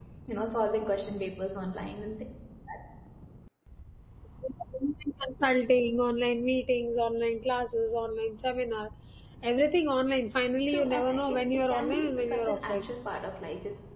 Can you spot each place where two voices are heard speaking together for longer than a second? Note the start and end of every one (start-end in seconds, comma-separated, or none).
10.7-12.8